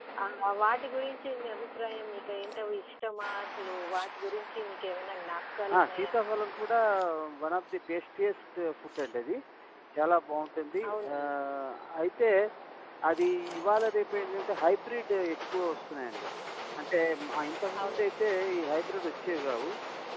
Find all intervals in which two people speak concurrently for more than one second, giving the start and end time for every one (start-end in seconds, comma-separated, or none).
none